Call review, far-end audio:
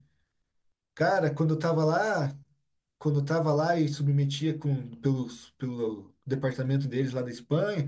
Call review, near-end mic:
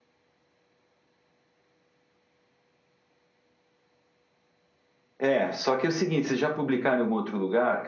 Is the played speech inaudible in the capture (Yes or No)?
Yes